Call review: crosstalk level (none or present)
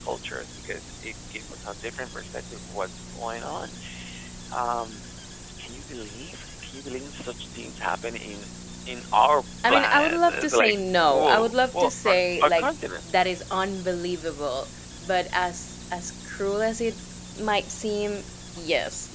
present